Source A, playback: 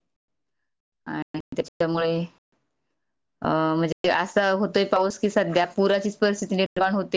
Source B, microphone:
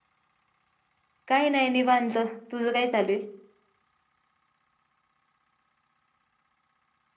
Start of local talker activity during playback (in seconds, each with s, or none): 1.3 s